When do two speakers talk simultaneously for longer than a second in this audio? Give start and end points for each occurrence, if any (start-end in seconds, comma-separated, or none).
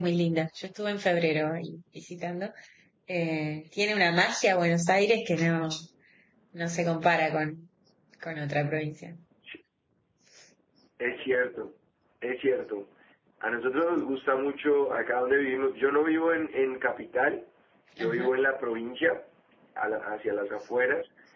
none